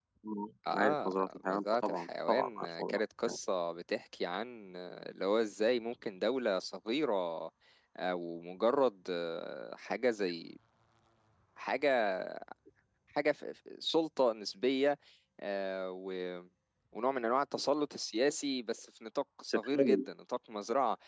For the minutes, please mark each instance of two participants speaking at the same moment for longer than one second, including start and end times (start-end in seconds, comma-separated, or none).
0.7-3.4